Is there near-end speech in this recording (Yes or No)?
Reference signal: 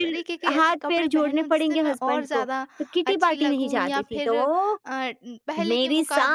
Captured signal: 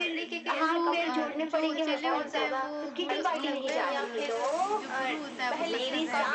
Yes